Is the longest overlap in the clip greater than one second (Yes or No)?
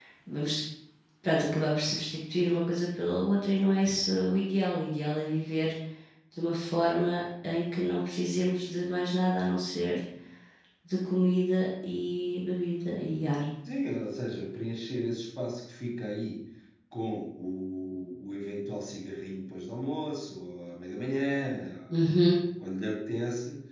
No